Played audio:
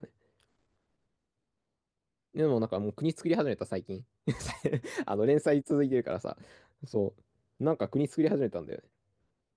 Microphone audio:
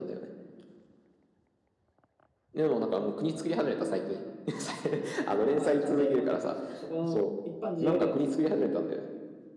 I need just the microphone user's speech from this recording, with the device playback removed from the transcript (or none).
まあちゃんとやり込んでるから、そ、そこの一般人よりは強い。